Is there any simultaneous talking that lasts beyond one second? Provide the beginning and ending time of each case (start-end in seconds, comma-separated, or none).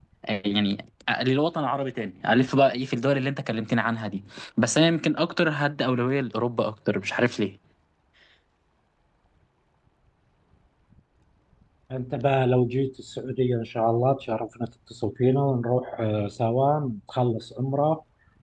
none